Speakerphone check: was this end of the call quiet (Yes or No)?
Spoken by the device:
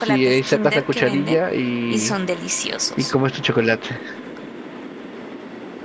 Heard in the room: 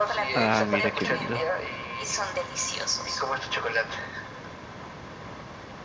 No